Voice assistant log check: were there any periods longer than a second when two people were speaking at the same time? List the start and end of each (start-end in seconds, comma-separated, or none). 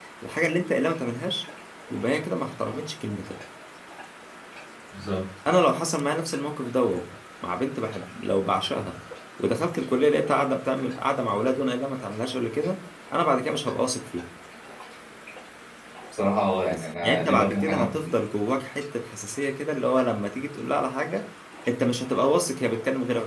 16.7-18.1